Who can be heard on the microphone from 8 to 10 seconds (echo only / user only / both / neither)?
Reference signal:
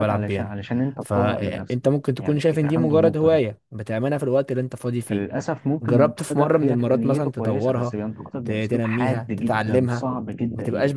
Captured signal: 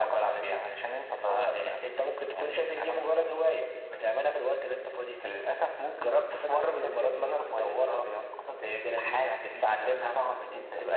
both